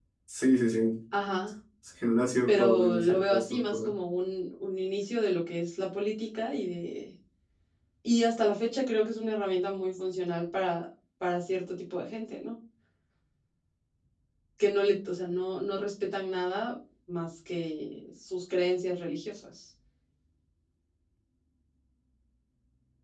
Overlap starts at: 2.5 s

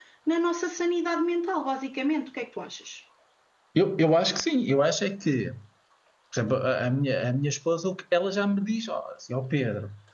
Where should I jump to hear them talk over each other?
none

